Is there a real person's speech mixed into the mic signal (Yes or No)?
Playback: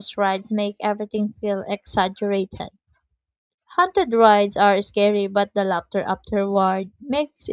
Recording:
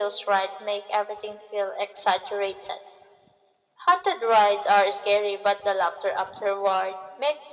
No